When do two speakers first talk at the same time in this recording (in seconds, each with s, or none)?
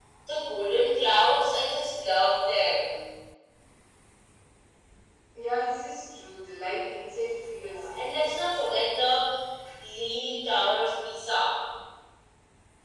7.5 s